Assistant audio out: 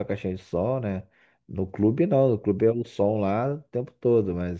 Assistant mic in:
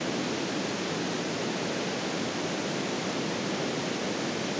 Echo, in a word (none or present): none